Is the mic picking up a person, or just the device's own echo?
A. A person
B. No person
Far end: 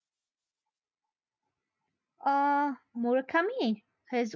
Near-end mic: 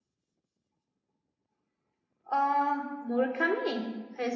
B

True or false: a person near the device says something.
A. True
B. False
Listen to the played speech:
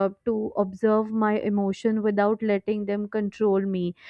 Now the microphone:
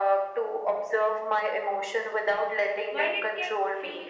A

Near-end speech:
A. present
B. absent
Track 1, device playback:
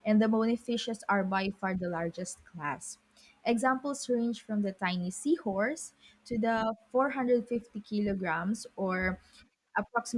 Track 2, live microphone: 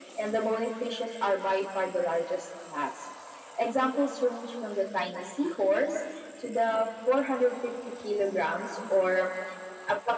B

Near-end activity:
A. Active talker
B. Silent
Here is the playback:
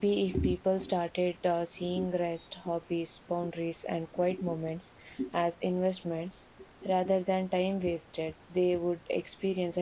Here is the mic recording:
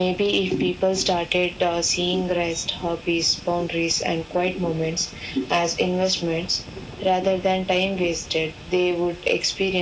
B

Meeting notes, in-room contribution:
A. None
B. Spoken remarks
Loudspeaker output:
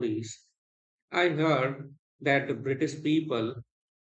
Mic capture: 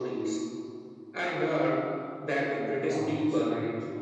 B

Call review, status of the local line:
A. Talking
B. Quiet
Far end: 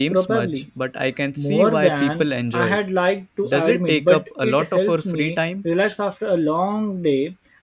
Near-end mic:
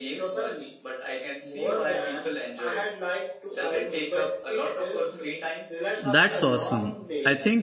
A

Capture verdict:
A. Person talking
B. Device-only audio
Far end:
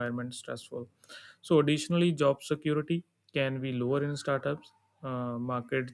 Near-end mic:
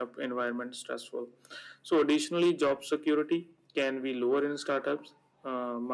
B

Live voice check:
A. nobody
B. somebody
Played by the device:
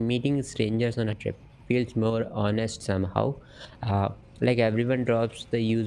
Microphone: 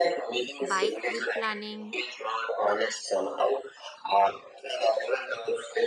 B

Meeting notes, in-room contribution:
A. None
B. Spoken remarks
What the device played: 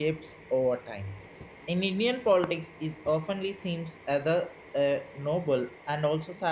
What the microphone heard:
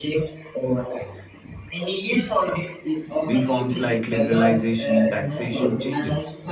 B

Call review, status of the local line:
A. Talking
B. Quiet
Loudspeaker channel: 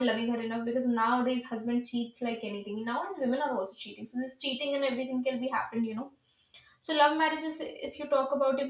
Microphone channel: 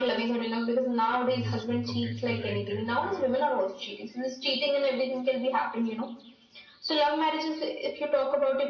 A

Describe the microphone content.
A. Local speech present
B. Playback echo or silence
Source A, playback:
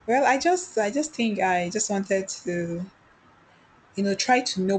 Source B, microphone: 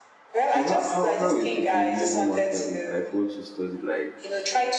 A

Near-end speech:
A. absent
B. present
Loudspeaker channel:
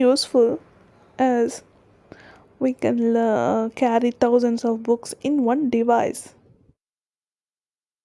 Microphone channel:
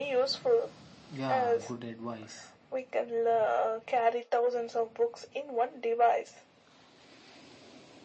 B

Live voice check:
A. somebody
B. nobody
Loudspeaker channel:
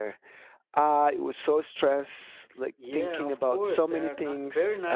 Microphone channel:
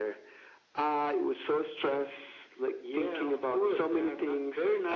B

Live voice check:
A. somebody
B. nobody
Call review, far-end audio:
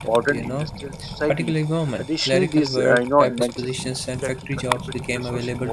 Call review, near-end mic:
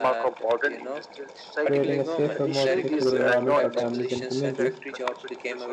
A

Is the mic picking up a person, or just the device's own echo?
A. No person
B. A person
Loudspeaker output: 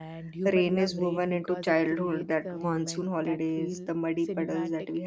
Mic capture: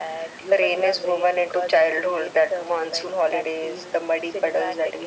A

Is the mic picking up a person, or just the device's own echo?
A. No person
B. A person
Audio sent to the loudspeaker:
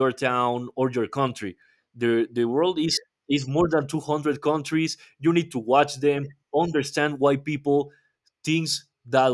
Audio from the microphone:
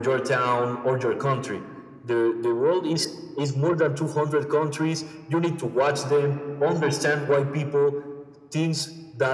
A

